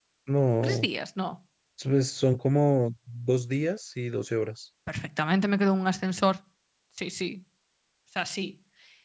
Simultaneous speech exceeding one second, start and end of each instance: none

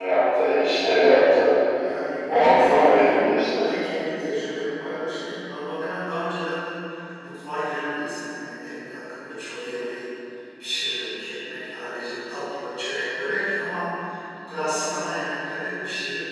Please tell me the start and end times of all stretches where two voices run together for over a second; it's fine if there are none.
2.3-3.6

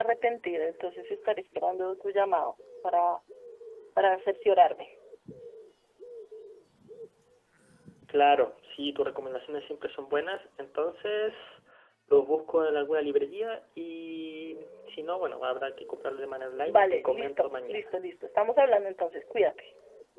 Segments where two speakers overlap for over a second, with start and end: 16.7-17.9

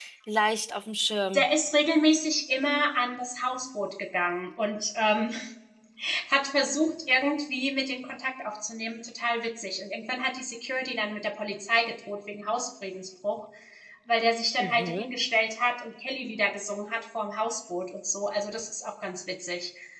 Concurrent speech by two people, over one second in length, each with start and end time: none

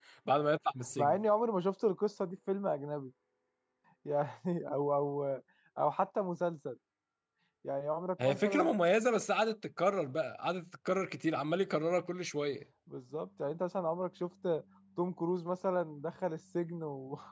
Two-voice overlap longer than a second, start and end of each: none

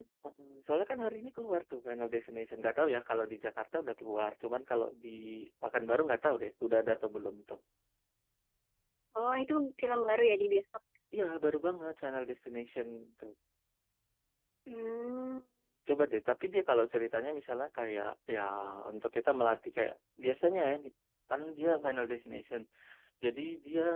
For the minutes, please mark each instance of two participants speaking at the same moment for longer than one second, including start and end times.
none

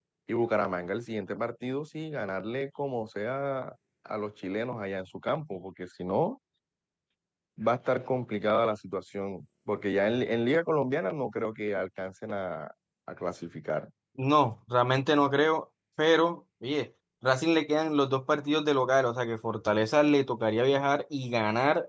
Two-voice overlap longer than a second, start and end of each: none

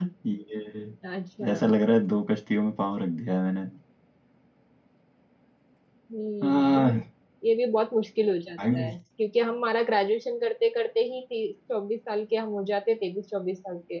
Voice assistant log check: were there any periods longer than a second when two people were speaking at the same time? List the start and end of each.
none

